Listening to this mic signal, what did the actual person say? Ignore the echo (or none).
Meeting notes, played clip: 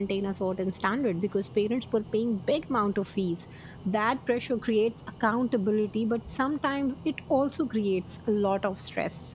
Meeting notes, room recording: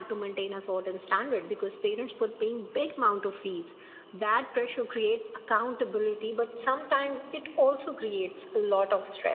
none